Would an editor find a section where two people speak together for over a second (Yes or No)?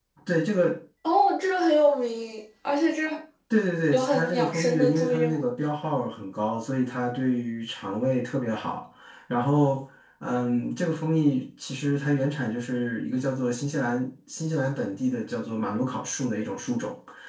Yes